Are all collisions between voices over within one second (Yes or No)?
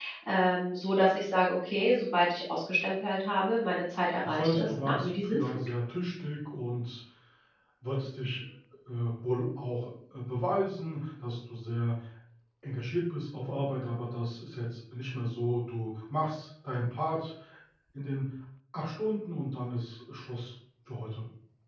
No